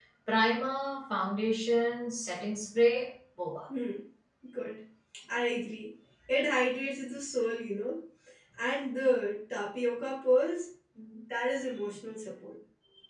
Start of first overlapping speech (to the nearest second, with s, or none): none